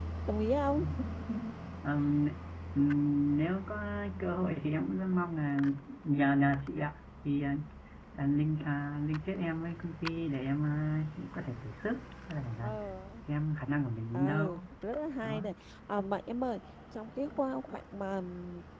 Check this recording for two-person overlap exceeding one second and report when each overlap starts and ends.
none

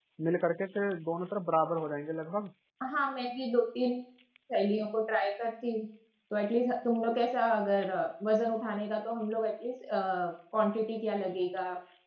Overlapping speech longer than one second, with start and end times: none

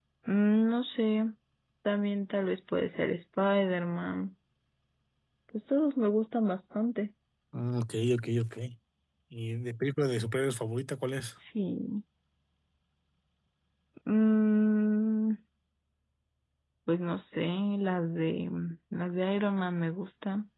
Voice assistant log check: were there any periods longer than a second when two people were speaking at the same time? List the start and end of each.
none

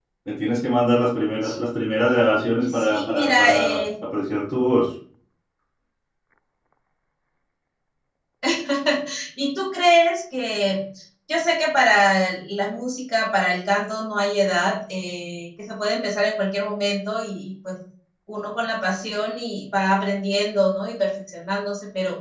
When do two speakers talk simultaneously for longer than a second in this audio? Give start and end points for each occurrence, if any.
2.6-3.8

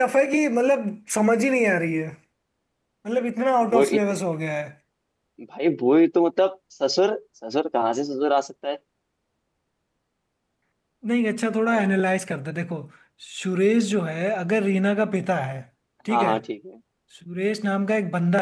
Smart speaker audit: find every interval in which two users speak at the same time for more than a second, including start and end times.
none

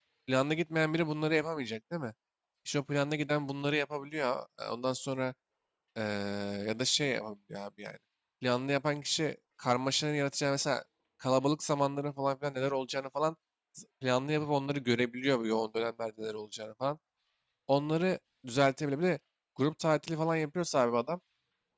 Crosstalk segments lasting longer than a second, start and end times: none

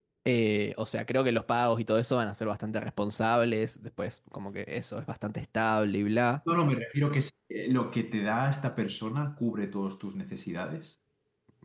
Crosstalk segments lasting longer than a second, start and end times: none

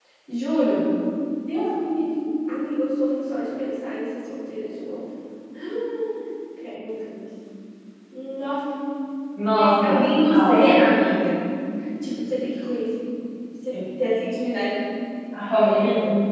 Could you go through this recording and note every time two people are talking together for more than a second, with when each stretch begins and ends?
9.5-10.7

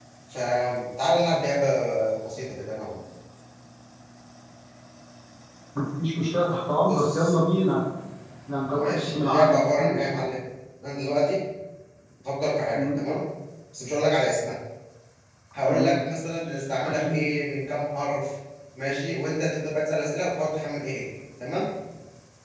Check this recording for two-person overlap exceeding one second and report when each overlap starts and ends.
8.8-10.0

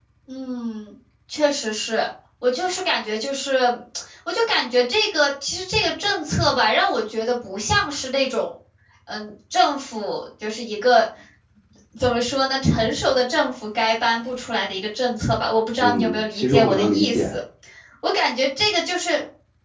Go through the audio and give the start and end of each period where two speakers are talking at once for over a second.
15.8-17.4

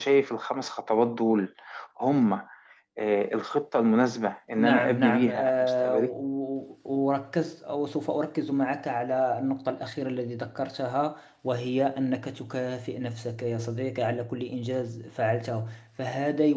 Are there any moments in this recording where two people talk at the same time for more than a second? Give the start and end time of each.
4.6-6.1

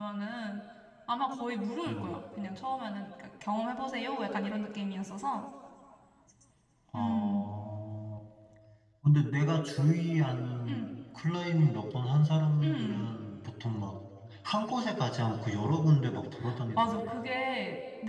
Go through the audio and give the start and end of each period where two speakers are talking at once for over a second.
none

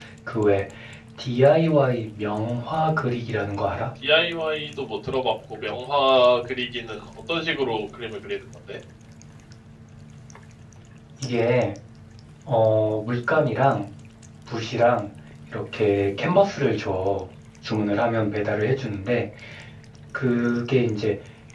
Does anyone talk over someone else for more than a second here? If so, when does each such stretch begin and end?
none

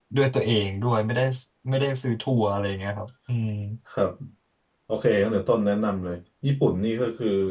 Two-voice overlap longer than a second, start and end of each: none

